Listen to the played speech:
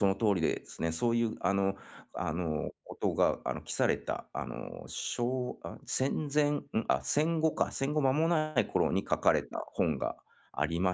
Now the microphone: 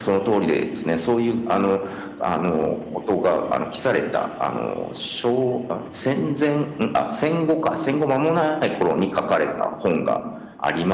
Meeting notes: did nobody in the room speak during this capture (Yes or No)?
Yes